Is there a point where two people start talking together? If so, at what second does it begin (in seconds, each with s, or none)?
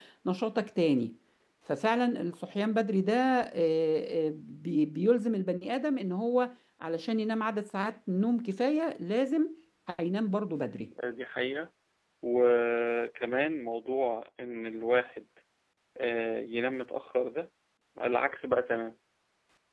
none